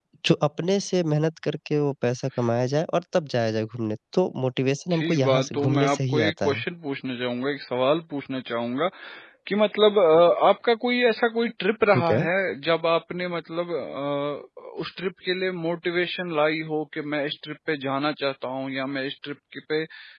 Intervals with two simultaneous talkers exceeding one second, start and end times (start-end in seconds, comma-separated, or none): 4.9-6.6